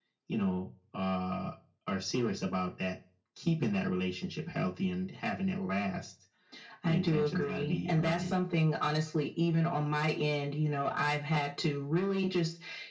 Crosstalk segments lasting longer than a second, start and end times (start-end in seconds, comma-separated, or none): 6.9-8.4